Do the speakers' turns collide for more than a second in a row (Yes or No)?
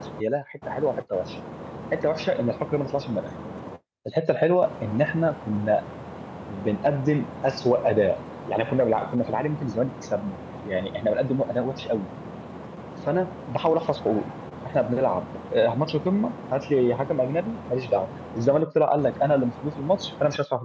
No